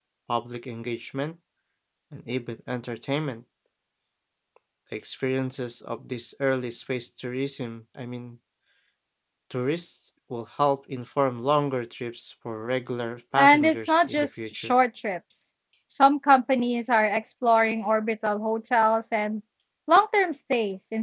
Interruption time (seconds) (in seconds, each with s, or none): 13.4 s